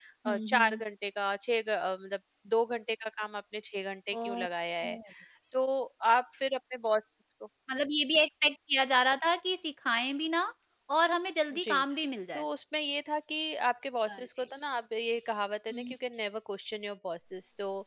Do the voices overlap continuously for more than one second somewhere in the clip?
No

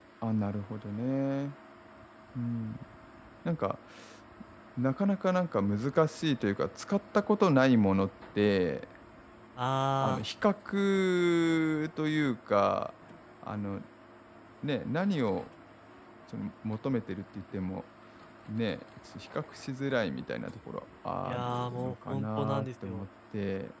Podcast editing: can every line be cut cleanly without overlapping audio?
No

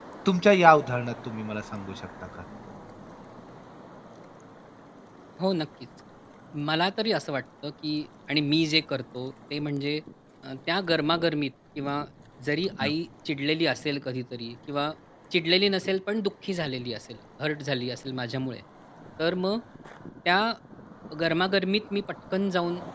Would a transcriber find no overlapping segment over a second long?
Yes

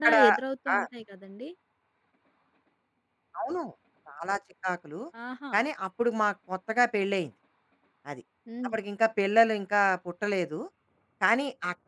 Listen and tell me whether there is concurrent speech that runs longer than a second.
No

